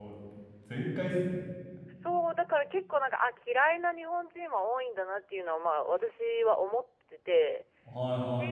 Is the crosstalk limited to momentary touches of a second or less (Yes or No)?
Yes